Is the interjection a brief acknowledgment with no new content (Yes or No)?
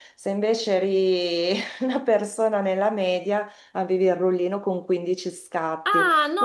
No